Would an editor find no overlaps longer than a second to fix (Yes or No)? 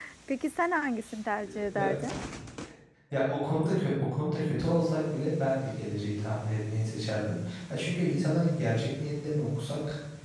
Yes